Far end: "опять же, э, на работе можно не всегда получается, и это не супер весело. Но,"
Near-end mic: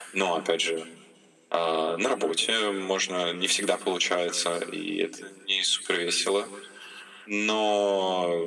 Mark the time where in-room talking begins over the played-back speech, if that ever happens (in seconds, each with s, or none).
none